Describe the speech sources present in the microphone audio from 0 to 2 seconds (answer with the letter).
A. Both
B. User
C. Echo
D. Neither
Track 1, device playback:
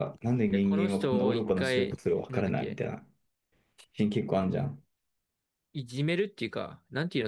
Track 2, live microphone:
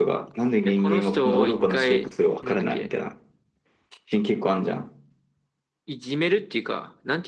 C